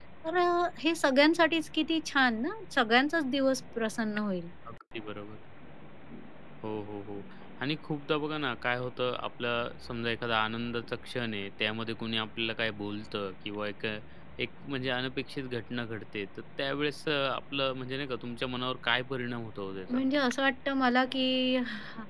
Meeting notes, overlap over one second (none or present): none